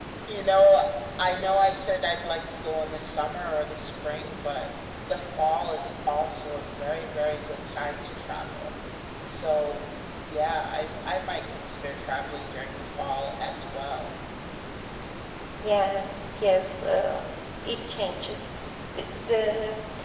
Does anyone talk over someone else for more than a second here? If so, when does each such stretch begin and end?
none

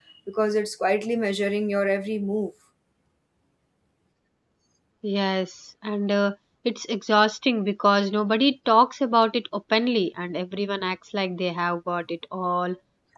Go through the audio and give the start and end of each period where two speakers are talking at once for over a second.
none

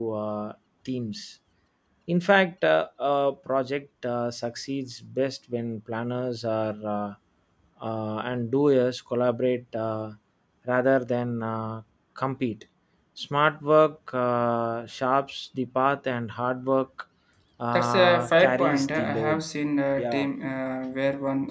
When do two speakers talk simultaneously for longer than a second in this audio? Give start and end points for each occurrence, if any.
17.7-19.4

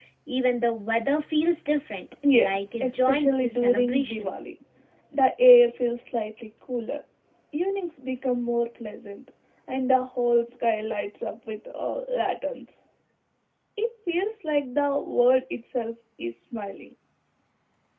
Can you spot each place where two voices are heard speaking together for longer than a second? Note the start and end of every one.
2.3-4.3

